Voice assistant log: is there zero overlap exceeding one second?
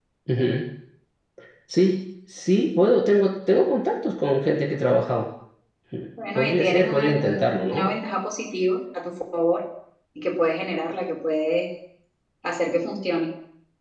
No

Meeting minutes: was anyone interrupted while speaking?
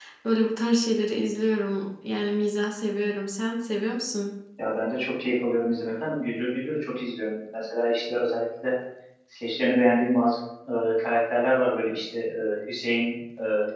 No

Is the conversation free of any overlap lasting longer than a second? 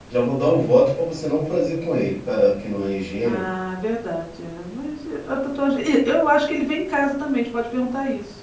Yes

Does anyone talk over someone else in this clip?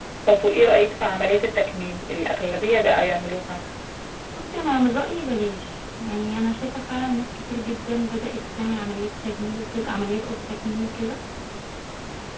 No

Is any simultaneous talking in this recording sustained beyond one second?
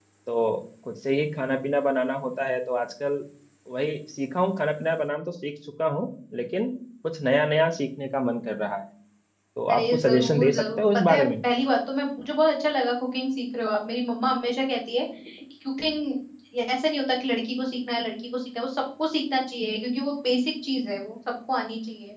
Yes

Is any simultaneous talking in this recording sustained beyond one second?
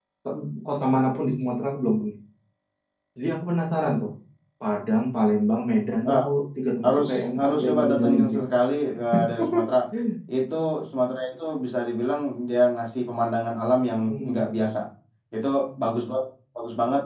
Yes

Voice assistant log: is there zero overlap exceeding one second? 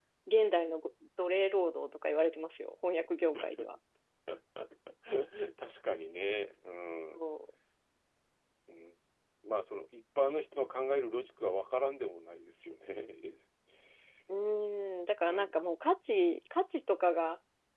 Yes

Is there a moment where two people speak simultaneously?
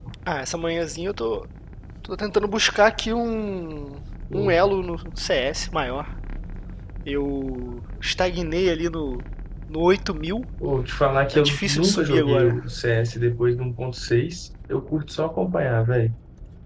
Yes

